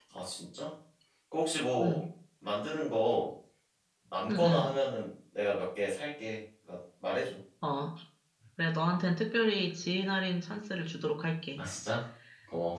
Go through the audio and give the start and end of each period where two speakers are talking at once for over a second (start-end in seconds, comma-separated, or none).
none